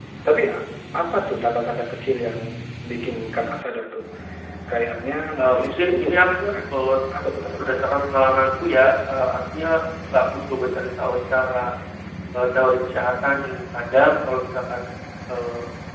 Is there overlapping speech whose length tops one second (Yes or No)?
Yes